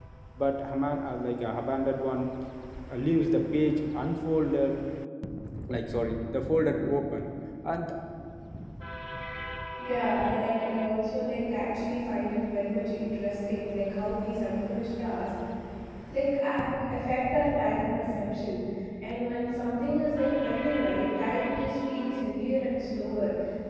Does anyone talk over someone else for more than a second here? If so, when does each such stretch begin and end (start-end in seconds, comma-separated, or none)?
none